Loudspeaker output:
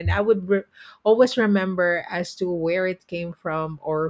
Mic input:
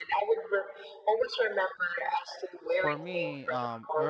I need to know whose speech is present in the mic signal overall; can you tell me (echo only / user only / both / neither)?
both